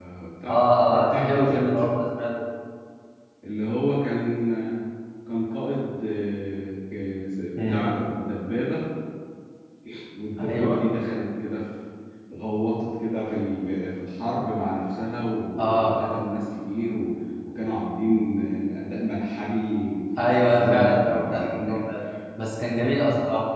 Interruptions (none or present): present